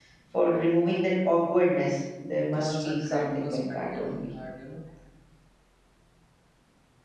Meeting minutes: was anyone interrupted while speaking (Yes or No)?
Yes